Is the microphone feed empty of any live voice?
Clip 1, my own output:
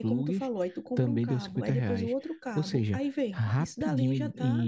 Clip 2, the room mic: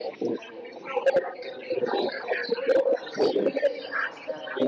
Yes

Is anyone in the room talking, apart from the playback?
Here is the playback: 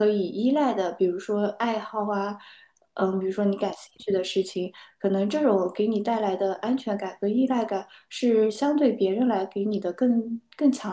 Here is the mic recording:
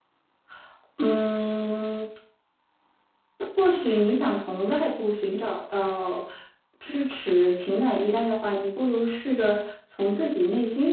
Yes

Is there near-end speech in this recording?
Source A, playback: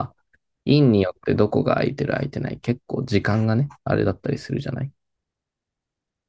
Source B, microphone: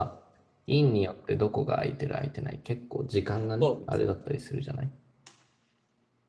Yes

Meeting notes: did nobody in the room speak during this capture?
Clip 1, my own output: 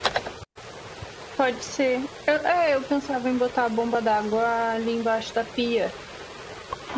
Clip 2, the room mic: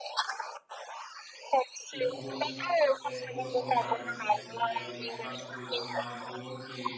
No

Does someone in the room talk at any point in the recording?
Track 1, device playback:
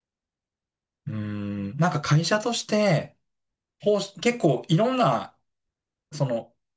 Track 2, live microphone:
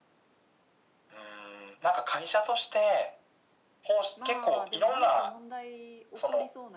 Yes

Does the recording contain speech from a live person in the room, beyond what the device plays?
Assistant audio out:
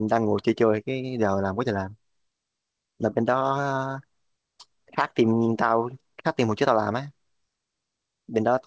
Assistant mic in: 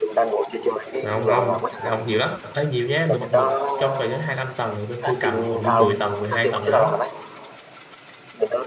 Yes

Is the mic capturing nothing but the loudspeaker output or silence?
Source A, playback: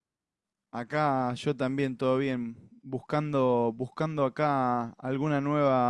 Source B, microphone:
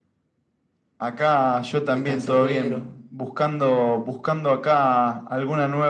No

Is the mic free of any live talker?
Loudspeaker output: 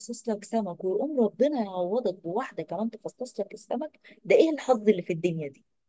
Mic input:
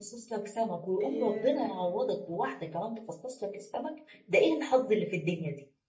No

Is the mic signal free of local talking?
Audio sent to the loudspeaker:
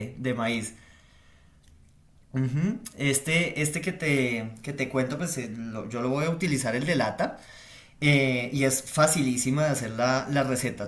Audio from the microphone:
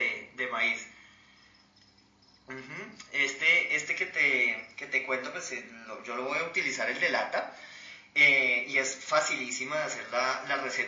Yes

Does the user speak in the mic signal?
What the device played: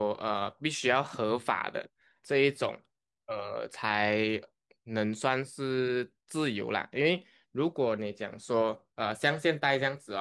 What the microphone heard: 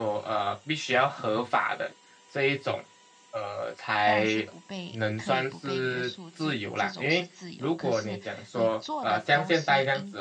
Yes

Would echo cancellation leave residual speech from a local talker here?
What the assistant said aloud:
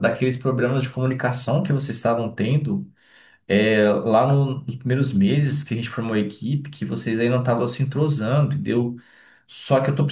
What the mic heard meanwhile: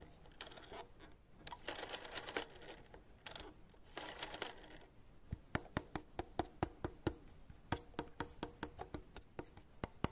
No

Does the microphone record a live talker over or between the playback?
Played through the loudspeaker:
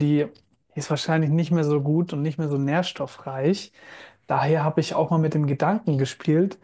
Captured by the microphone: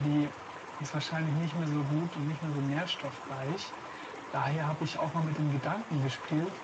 No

